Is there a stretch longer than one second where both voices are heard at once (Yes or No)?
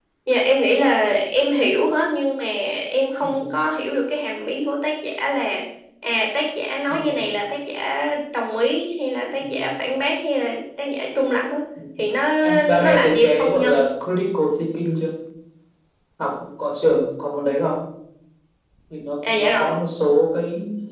Yes